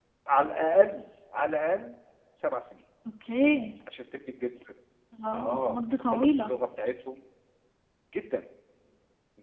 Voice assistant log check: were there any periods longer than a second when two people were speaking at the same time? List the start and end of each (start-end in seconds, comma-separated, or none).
5.3-6.5